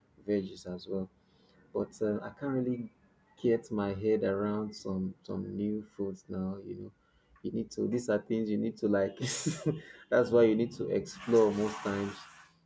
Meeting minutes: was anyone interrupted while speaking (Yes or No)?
No